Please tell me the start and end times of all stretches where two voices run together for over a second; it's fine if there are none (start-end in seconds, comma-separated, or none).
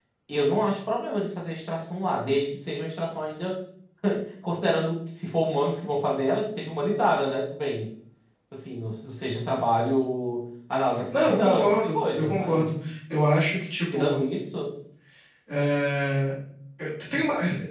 11.1-12.7